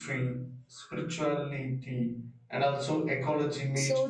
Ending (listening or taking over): taking over